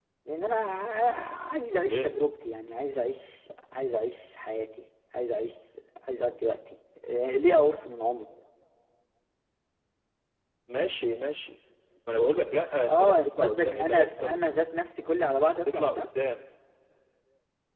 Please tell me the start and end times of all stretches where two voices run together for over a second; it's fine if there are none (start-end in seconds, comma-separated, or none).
12.9-14.4